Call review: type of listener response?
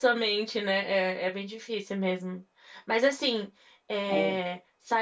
listening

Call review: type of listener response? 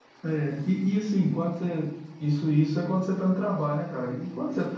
listening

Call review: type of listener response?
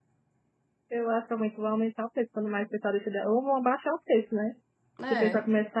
listening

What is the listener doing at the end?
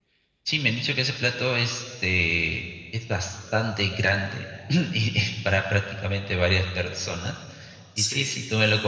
listening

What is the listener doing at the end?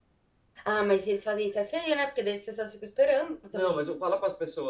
taking over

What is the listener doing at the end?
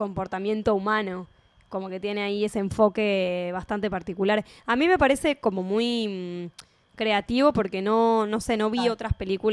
listening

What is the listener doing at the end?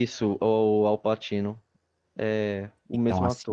taking over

